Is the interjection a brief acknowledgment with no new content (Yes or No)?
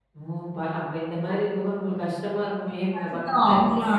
No